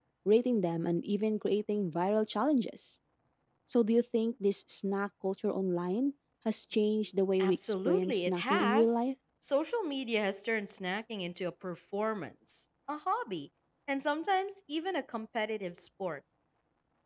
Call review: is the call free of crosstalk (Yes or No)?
No